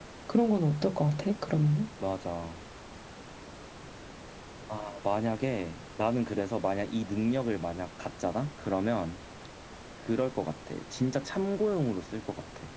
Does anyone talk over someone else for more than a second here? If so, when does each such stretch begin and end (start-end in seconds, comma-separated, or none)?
none